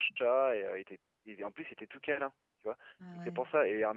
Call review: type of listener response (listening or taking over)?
listening